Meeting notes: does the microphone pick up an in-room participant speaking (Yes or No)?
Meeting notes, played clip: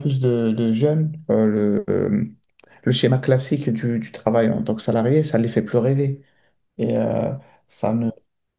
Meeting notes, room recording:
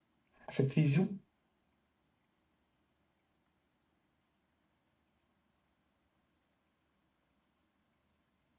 Yes